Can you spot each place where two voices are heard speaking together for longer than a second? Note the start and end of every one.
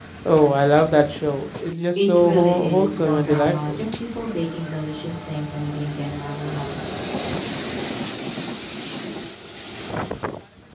2.0-3.8

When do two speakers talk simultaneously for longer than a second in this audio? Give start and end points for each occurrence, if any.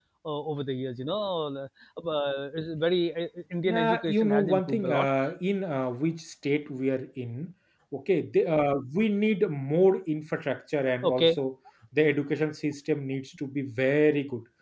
3.7-5.0

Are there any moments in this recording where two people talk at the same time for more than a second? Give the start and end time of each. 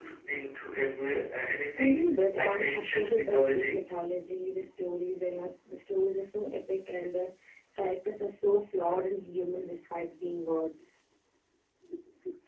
1.8-3.8

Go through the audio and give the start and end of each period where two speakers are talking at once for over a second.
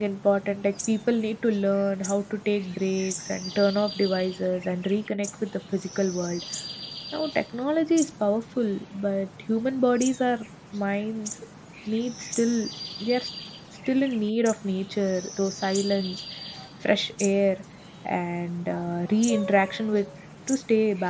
none

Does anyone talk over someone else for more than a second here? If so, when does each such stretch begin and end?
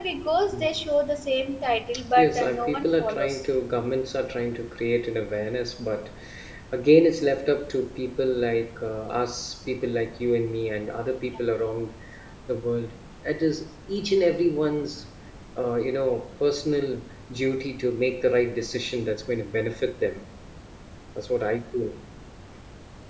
2.2-3.5

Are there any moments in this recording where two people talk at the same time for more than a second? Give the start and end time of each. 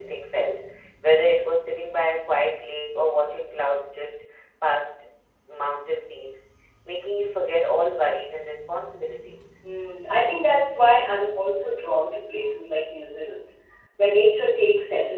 none

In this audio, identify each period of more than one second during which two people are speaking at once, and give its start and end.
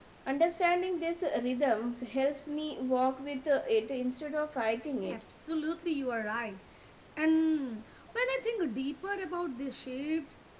none

